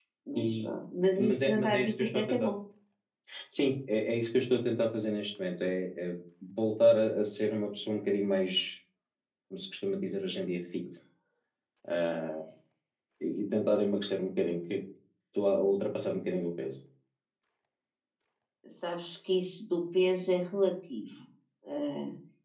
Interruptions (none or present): present